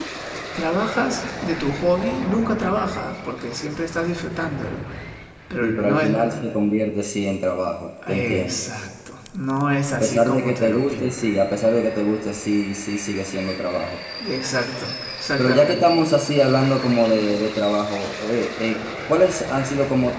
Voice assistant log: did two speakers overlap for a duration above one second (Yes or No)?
Yes